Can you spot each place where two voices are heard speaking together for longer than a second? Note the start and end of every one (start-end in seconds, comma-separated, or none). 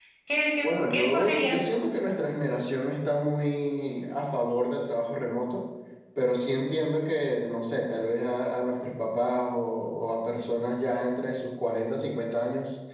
0.6-1.9